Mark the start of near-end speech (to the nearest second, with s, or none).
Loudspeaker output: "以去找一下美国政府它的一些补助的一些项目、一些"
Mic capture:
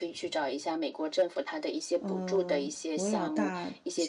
2 s